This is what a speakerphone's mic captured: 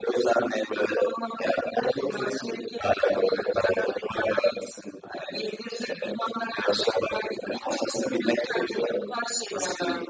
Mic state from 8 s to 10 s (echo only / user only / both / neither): echo only